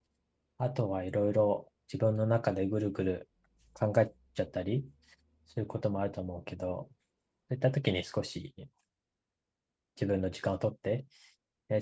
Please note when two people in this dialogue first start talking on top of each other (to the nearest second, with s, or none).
none